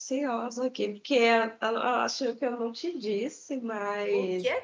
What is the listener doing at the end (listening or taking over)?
taking over